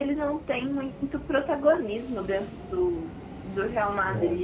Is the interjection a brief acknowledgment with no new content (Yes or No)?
Yes